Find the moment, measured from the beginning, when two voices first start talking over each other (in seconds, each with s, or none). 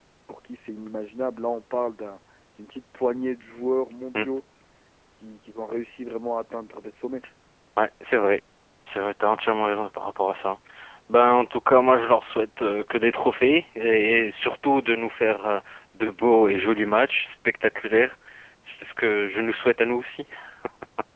none